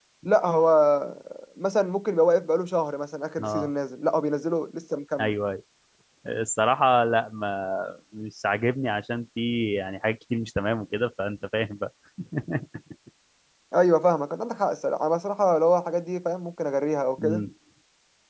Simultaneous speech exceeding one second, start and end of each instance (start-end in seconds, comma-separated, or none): none